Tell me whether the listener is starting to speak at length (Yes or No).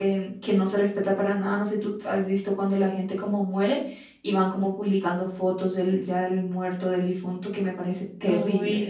Yes